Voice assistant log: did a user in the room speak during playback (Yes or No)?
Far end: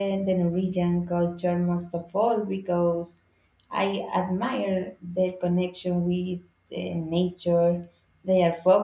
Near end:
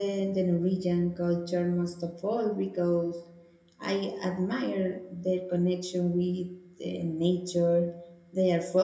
No